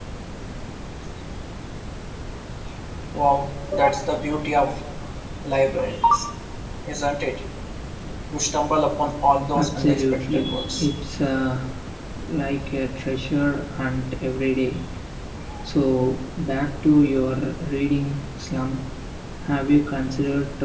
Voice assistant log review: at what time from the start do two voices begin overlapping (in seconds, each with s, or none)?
9.5 s